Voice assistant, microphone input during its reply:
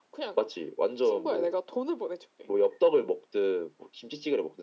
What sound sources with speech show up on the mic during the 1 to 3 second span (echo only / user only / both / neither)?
echo only